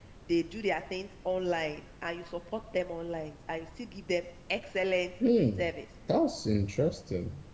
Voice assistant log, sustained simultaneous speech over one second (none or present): none